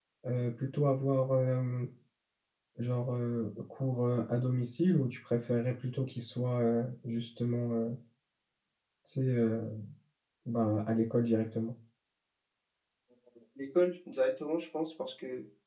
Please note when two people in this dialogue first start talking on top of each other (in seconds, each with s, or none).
none